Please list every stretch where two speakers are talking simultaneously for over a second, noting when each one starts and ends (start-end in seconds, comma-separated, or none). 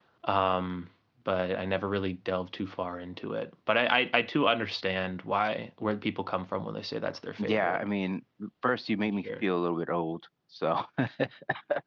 none